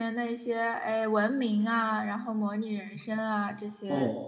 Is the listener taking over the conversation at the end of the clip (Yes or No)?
No